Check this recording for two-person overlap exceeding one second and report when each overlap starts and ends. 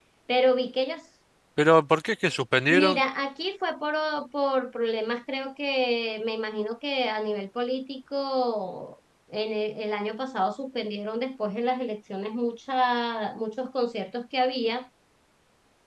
none

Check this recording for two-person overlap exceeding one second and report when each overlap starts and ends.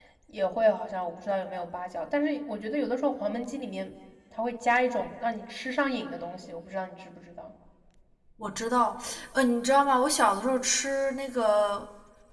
none

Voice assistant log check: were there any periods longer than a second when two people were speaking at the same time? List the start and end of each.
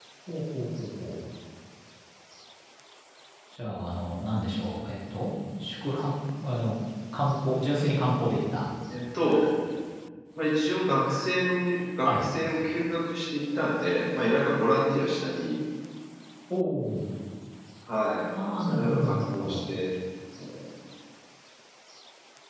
18.4-19.6

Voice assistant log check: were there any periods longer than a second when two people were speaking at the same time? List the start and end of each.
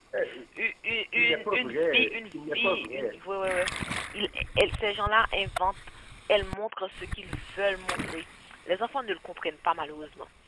1.1-3.2

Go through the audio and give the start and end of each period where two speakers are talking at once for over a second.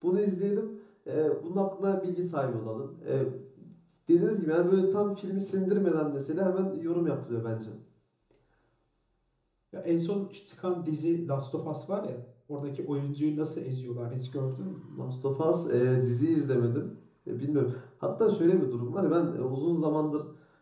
none

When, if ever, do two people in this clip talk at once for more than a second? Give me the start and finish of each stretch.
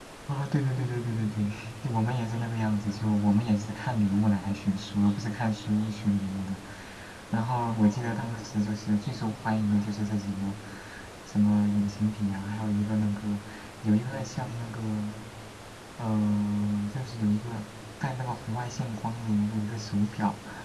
none

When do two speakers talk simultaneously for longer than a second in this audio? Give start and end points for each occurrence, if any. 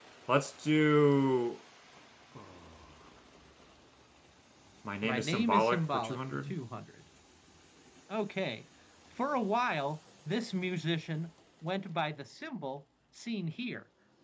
5.0-6.5

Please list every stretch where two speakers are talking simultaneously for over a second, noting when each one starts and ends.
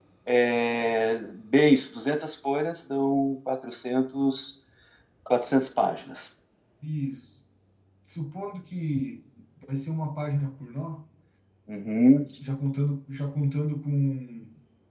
none

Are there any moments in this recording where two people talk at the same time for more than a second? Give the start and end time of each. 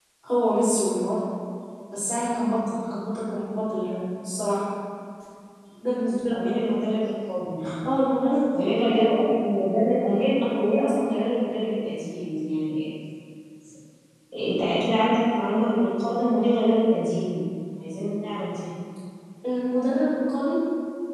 none

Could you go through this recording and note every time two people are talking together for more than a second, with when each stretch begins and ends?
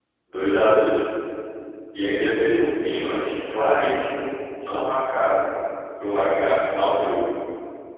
none

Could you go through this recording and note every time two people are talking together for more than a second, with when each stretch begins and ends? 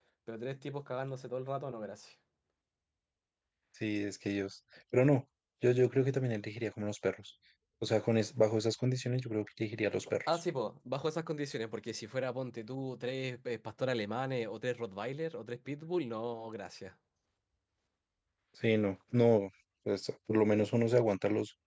none

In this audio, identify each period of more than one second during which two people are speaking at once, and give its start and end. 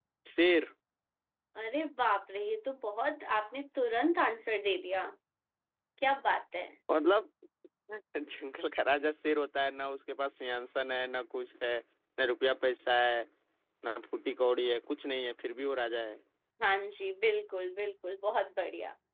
none

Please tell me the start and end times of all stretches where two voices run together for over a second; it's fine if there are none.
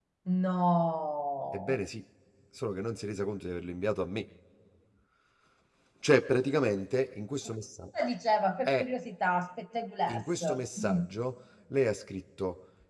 none

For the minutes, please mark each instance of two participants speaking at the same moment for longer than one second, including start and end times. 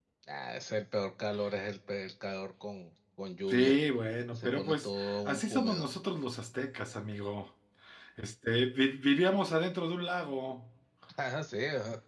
4.3-5.9

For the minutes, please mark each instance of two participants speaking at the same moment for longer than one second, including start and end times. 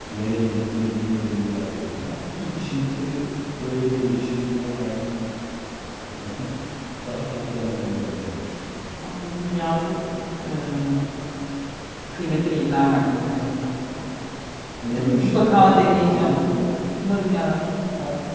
14.9-16.4

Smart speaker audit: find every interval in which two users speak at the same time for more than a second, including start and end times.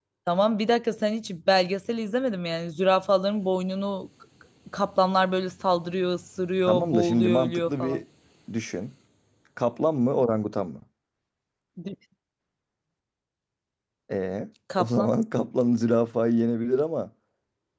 6.7-8.0

